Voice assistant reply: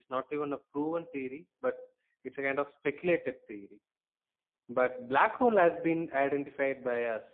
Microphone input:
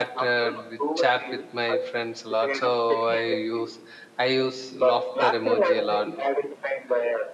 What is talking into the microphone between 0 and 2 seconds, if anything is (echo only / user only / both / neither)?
both